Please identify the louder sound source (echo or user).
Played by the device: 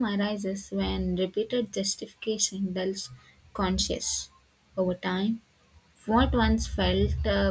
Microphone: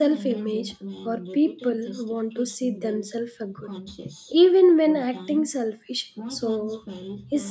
user